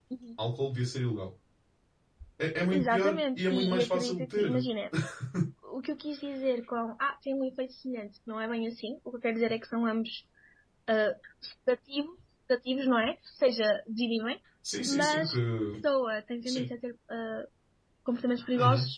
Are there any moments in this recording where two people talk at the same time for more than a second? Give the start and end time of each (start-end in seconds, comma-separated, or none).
2.7-4.6